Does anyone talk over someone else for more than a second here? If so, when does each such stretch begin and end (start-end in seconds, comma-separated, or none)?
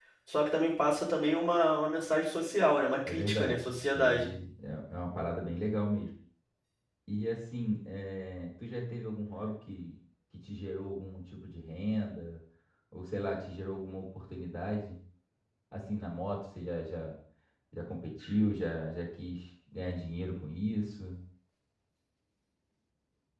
3.1-4.3